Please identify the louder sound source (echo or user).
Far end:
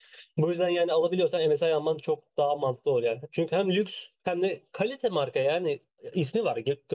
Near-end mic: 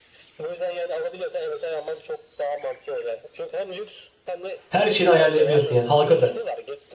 user